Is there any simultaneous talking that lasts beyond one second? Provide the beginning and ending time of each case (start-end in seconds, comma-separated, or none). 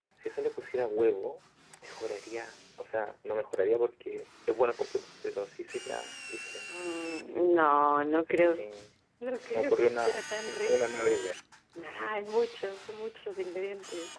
9.5-11.3